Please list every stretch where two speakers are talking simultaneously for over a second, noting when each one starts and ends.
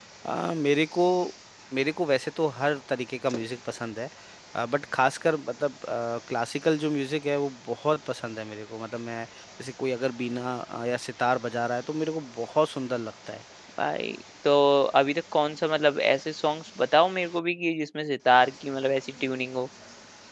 none

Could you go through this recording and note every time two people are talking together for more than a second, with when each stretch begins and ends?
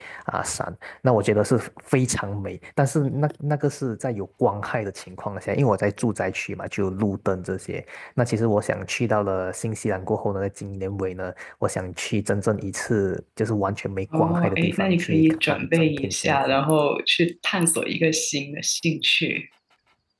14.2-16.6

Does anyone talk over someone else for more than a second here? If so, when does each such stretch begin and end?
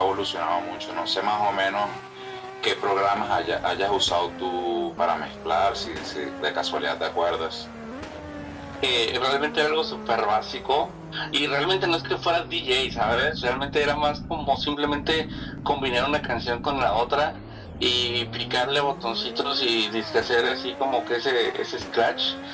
none

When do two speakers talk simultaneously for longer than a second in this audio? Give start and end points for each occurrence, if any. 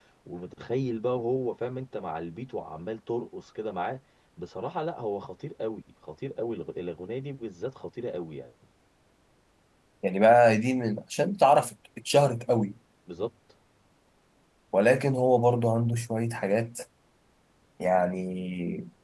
none

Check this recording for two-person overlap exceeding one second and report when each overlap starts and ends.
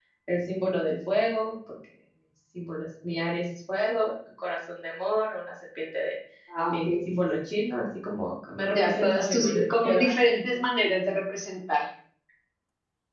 8.7-10.1

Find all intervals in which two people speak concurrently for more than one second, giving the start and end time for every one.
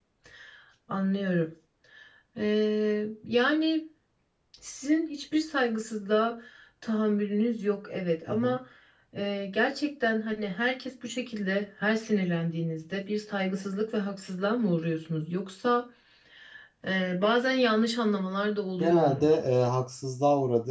none

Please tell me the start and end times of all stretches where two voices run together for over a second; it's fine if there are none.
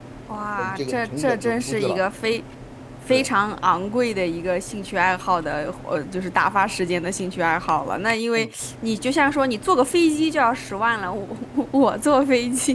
0.6-2.0

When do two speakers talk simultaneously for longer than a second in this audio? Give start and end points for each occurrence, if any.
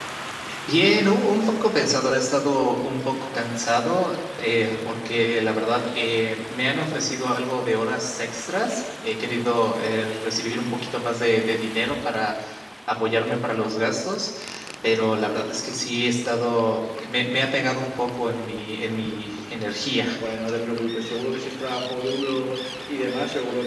none

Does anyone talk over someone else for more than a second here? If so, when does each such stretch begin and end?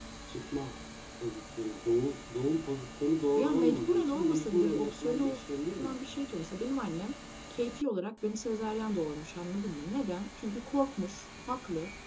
3.4-5.4

